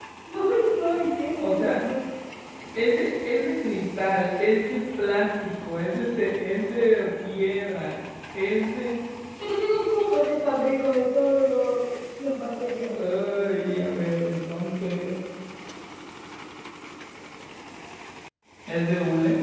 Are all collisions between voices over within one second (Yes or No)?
Yes